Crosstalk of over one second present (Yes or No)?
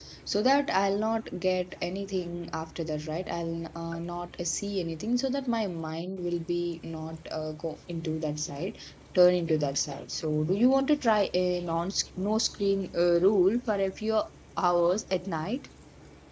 No